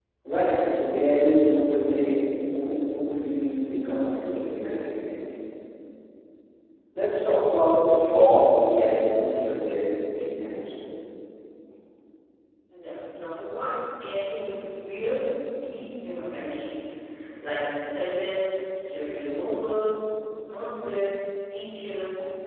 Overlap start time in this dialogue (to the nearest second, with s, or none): none